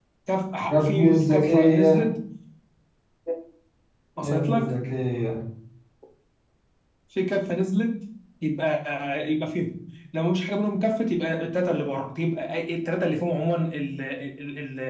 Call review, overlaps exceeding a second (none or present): present